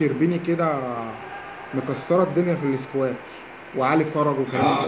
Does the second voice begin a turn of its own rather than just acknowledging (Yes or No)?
Yes